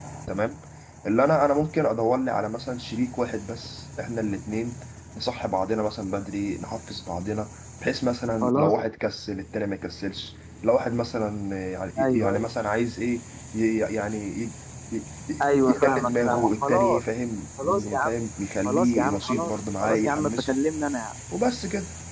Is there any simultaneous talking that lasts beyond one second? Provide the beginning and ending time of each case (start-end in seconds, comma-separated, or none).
15.4-17.0, 18.6-20.6